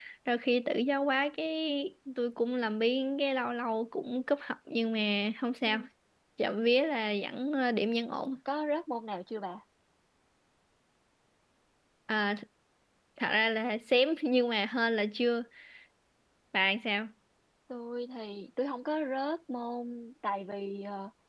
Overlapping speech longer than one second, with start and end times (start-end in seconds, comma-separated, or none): none